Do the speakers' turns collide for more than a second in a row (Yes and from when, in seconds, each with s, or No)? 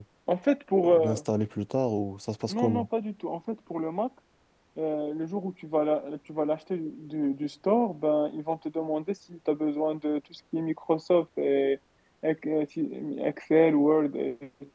No